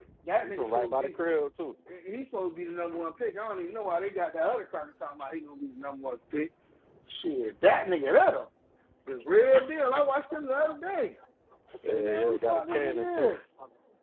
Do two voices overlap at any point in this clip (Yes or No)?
Yes